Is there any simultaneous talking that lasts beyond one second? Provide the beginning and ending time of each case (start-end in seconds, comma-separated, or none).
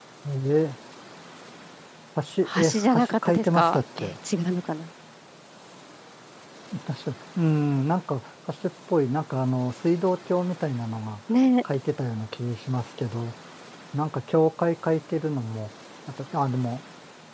2.7-4.2